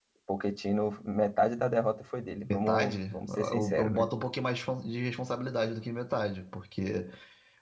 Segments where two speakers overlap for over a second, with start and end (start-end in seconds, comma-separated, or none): 2.5-4.1